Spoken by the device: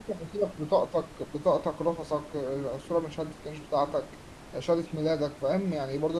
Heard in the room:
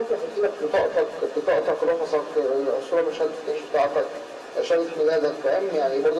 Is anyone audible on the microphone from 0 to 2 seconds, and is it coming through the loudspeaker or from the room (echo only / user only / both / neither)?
echo only